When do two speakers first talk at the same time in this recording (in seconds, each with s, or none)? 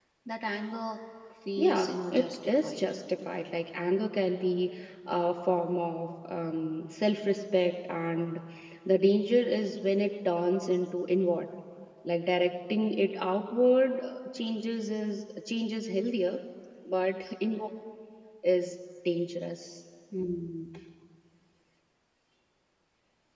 1.6 s